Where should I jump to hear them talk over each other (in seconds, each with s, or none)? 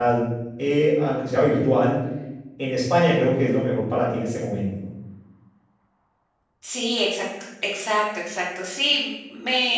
none